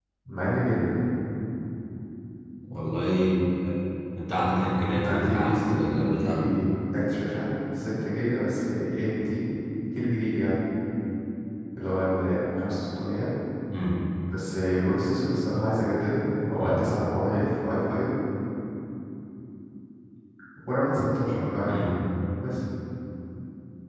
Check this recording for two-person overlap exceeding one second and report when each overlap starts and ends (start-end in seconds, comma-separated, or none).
5.0-6.3